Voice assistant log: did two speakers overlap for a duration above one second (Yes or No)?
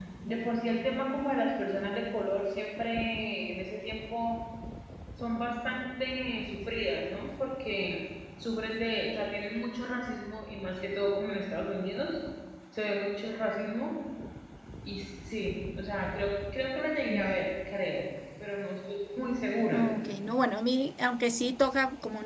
No